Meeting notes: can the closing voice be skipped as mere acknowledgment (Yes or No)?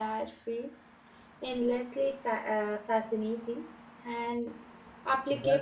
Yes